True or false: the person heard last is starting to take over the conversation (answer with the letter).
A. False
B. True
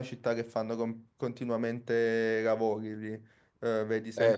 A